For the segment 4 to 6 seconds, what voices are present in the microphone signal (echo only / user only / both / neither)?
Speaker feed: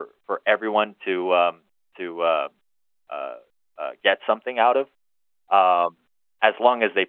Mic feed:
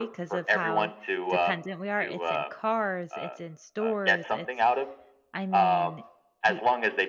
both